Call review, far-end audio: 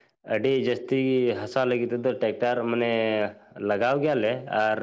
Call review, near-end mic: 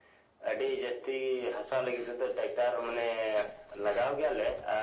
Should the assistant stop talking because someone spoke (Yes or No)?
No